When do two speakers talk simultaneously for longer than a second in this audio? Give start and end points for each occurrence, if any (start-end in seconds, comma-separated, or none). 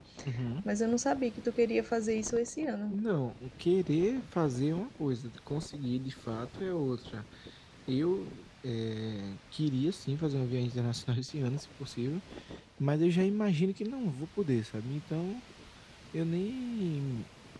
none